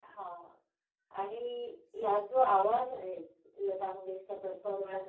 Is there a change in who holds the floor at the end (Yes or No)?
No